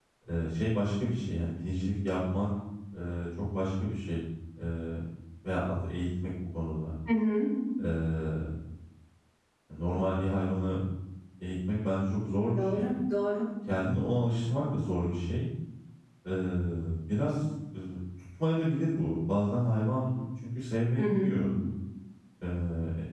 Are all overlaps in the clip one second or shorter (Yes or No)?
Yes